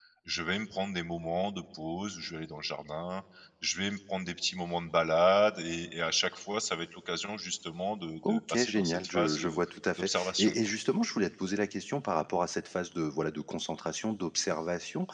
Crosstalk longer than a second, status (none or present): present